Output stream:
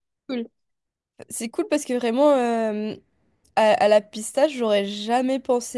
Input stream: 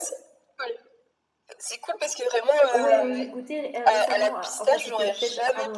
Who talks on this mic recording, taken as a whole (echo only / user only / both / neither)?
both